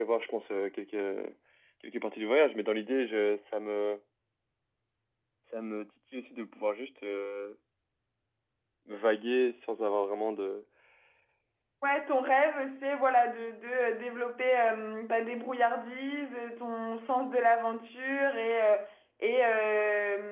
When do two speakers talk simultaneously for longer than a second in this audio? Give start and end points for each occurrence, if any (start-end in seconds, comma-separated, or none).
none